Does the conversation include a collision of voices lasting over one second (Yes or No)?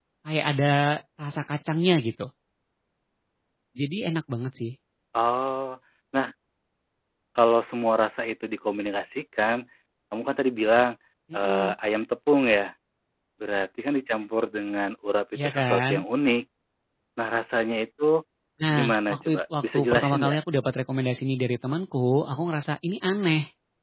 Yes